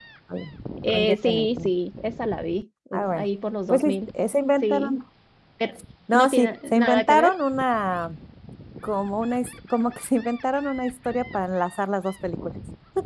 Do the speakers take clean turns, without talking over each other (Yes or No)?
No